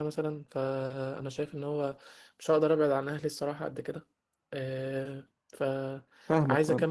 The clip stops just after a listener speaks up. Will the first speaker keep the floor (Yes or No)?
Yes